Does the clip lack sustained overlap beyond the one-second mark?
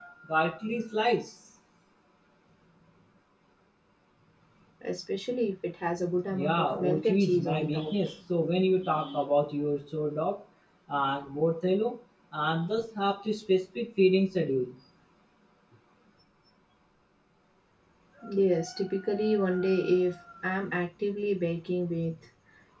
No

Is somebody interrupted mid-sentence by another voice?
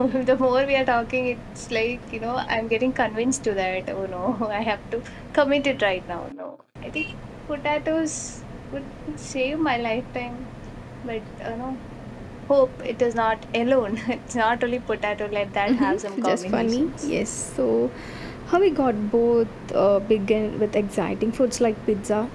Yes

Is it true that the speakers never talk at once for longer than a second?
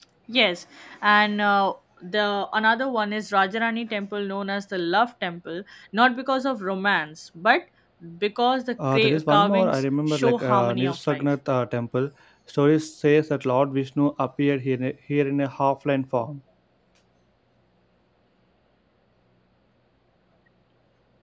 No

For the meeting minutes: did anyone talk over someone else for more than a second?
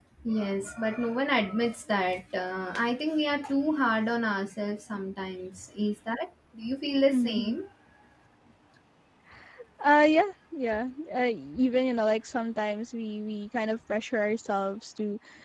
No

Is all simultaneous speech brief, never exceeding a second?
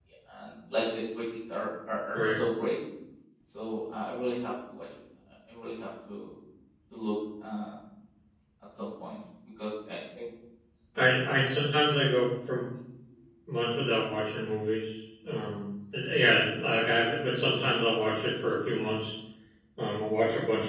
Yes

